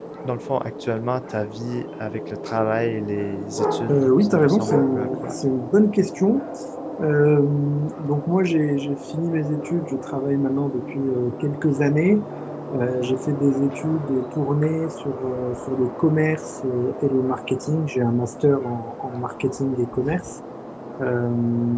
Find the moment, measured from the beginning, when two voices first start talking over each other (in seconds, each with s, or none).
3.9 s